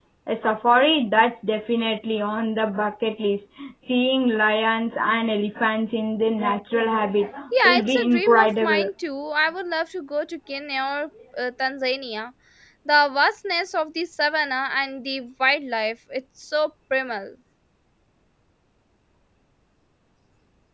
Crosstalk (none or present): present